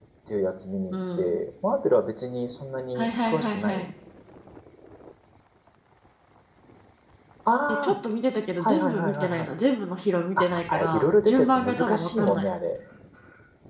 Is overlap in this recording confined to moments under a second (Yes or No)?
No